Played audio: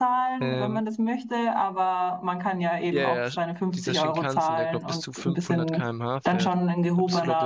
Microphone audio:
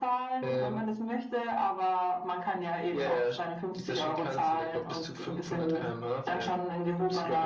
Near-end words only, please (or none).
none